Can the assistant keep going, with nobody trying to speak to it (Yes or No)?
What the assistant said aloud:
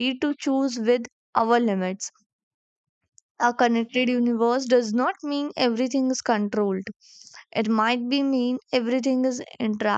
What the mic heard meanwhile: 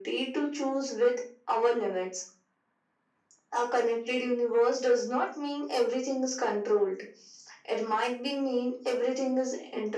Yes